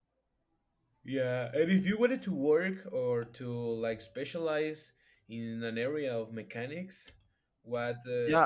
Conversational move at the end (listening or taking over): taking over